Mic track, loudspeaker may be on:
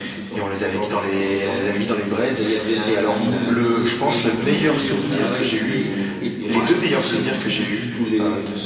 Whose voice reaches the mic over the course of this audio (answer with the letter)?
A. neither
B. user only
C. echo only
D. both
D